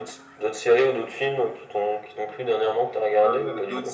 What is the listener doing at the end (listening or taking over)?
taking over